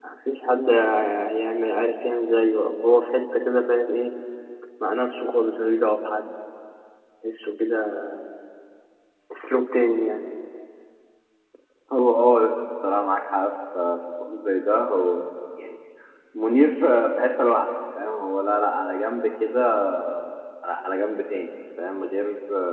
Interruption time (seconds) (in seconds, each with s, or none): none